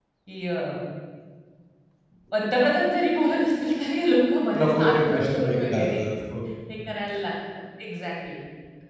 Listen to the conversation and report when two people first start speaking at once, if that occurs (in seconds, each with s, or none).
4.5 s